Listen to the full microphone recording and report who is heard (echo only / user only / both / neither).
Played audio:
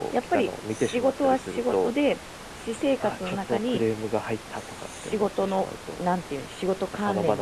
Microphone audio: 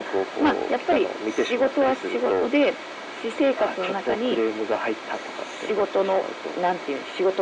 echo only